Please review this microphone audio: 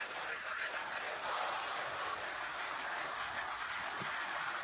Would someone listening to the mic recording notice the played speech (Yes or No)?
No